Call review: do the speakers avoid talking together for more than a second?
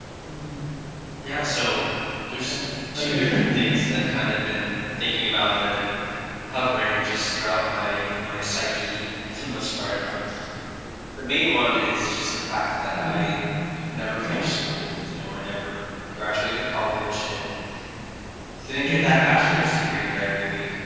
No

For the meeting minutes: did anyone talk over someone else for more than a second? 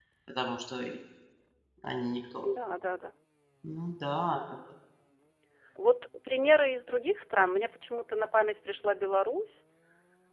No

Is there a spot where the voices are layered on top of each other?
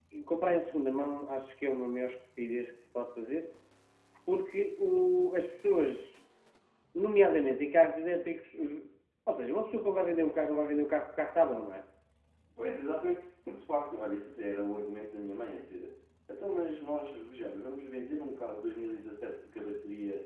No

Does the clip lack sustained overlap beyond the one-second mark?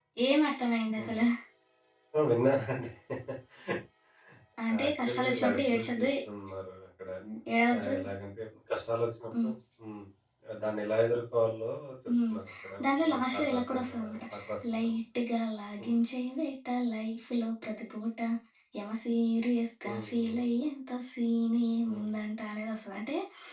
No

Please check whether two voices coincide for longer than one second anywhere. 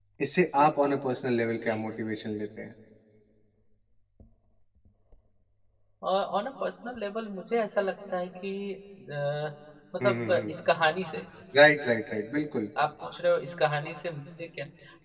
No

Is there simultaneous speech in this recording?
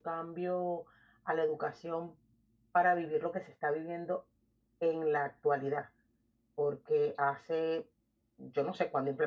No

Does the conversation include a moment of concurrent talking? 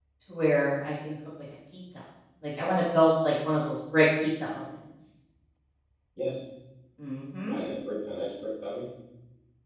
No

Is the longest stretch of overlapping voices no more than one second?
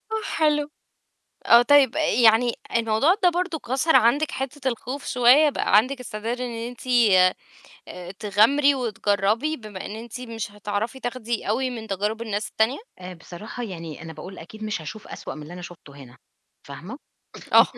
Yes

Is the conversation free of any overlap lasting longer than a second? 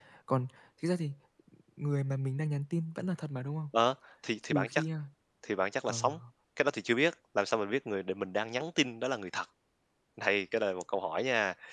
Yes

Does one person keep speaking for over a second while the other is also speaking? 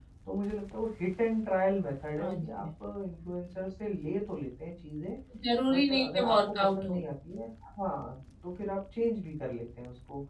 Yes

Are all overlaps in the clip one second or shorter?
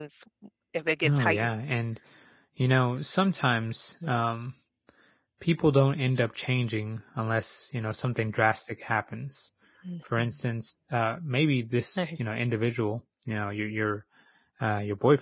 Yes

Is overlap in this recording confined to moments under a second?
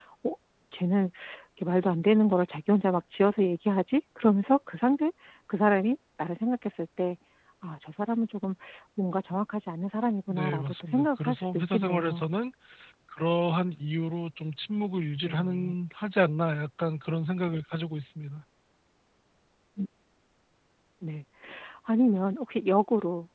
No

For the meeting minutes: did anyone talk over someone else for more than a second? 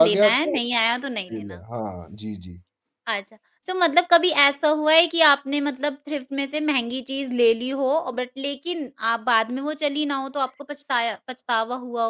No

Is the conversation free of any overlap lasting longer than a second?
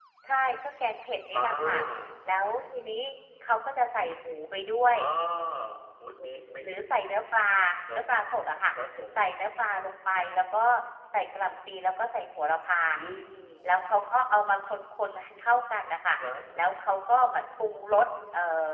Yes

